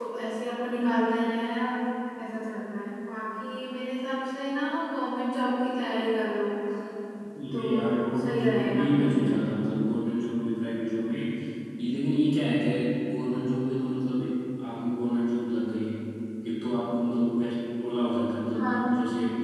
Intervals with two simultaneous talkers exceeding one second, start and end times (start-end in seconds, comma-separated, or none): 7.5-9.3